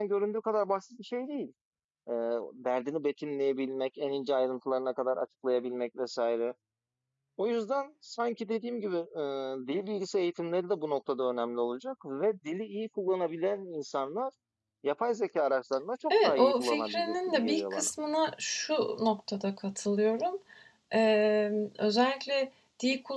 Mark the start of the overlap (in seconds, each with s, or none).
16.1 s